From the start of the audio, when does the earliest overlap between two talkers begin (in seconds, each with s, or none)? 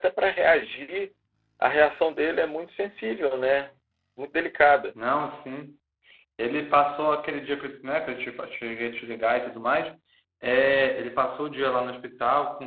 none